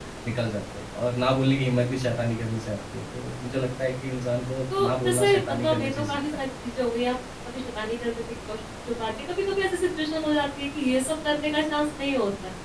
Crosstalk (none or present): present